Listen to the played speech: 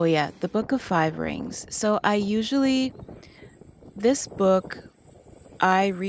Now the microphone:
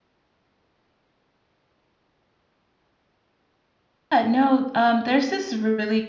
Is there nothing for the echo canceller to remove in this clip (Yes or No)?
Yes